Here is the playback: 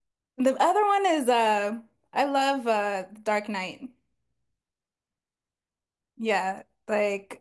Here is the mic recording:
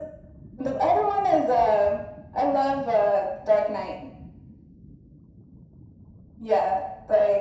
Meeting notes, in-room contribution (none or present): none